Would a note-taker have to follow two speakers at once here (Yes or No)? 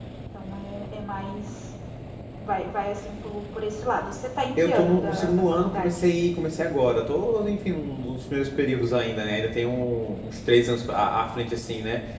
Yes